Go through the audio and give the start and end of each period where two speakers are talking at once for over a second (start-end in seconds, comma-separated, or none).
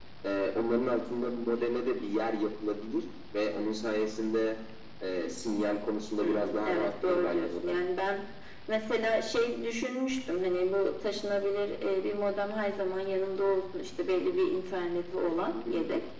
6.2-7.8